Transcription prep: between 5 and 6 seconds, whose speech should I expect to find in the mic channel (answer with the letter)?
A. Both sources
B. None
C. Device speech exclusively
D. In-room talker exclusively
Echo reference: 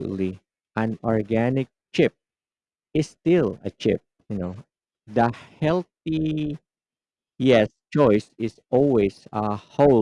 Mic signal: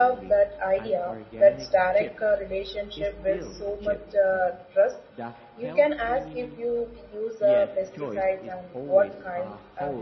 A